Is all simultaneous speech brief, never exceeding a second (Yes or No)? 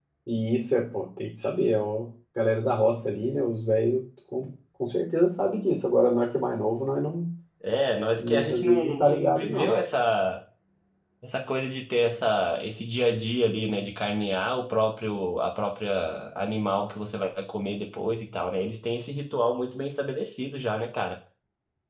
No